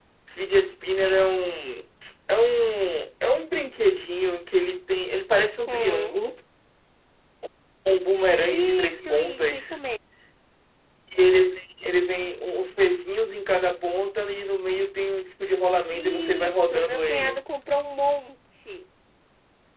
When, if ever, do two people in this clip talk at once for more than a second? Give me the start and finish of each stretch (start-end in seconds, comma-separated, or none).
8.5-9.8, 15.9-17.5